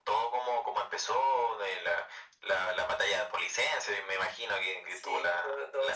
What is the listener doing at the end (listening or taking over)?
taking over